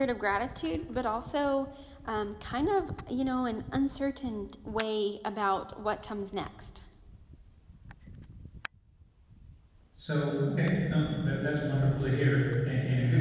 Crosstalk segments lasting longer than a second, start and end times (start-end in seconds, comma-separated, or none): none